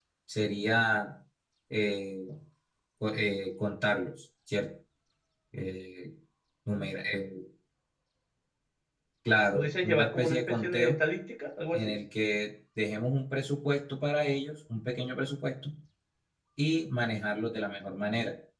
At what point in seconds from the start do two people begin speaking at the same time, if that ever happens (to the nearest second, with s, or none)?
10 s